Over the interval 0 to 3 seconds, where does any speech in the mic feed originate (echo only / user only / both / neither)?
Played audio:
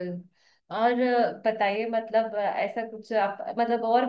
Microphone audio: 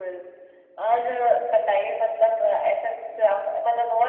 echo only